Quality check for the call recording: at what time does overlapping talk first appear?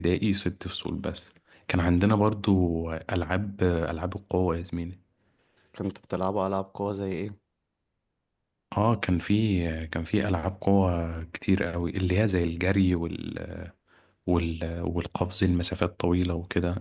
none

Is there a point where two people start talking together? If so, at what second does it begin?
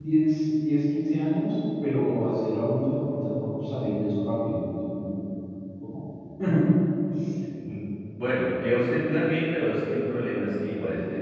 none

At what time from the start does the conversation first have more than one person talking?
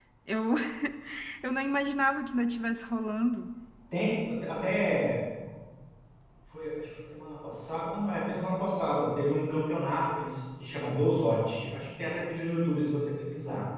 none

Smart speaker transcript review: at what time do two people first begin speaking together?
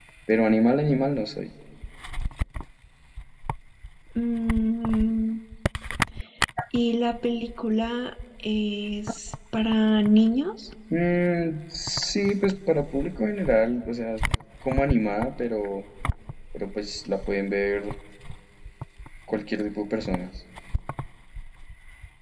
none

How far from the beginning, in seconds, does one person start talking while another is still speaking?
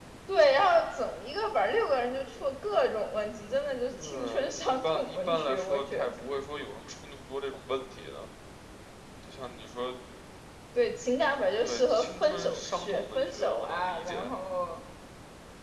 4.0 s

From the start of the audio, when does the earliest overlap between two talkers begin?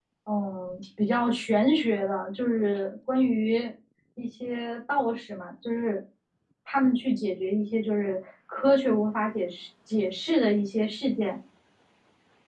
none

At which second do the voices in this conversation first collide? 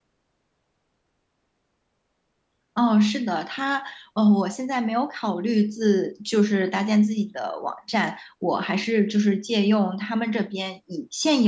none

